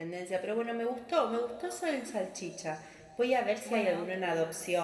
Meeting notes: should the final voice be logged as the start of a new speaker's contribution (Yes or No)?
No